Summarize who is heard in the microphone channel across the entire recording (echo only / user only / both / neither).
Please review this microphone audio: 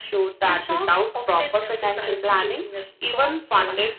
echo only